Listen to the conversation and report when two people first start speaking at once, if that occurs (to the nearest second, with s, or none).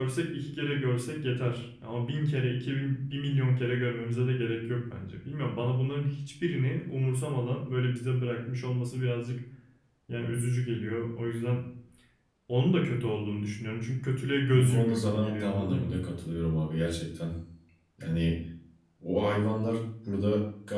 15 s